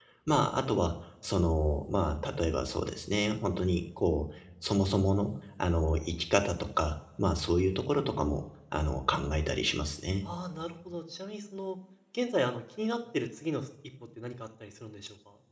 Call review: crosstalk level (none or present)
none